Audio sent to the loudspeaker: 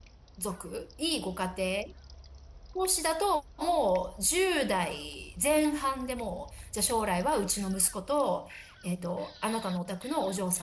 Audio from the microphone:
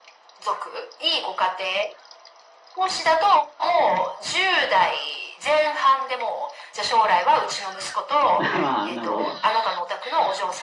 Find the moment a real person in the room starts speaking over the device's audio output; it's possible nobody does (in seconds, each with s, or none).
8.4 s